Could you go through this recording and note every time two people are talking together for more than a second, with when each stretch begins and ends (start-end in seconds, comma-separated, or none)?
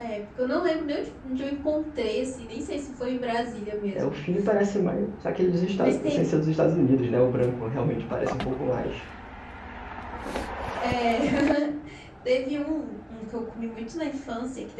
none